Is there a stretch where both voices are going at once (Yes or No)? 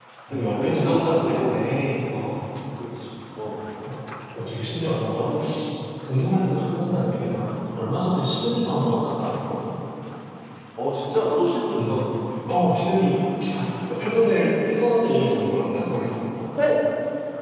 Yes